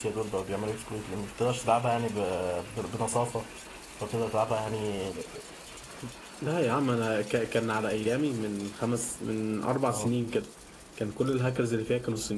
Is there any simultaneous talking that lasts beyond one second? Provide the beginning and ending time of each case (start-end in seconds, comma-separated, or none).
none